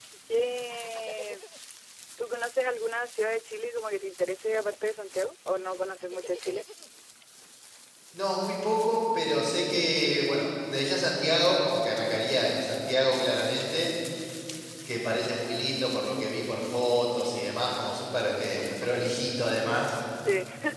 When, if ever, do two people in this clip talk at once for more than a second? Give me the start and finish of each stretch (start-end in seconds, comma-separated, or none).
none